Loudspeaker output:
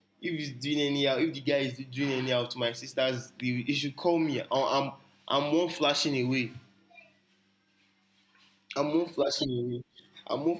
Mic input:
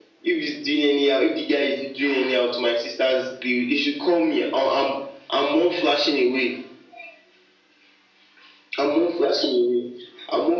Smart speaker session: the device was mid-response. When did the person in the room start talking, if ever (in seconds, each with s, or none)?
none